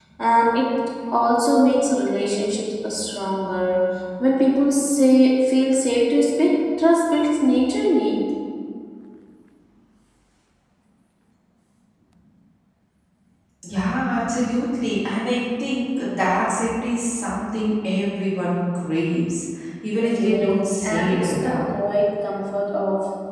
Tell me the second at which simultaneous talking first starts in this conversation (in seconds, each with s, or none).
20.0 s